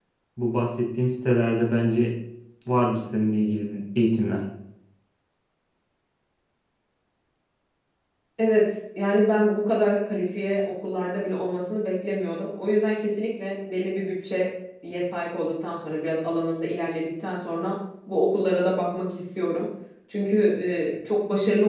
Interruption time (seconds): none

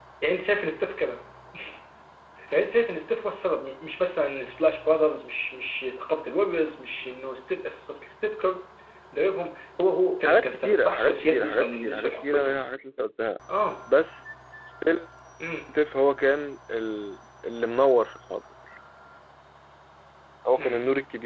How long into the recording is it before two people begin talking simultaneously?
10.2 s

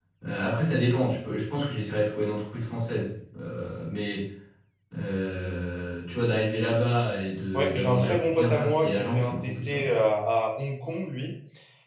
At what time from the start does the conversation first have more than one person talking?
7.5 s

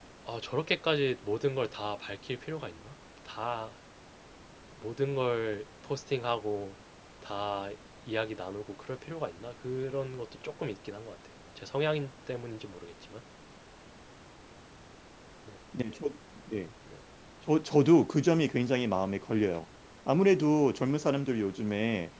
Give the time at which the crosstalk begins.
none

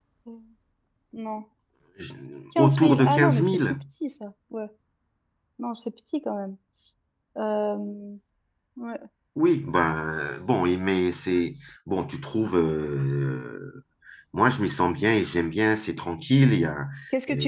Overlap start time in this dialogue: 2.6 s

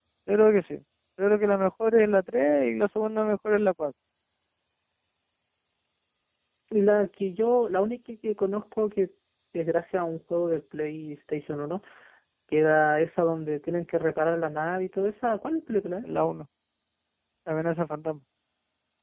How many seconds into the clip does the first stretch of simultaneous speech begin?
none

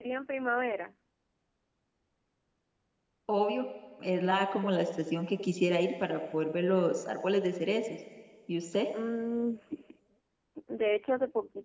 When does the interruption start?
none

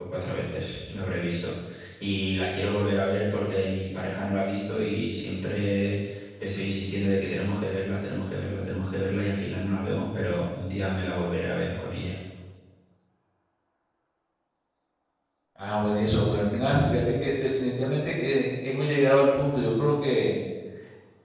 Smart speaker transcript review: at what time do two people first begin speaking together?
none

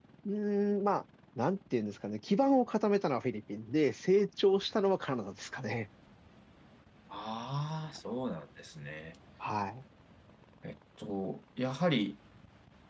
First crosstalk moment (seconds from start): none

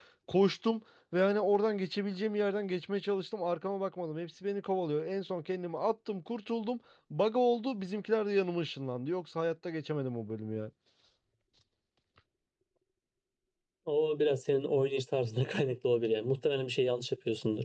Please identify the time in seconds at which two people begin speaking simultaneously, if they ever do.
none

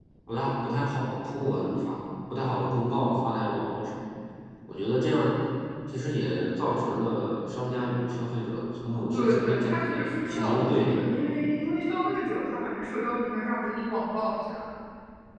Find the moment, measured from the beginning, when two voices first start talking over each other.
9.1 s

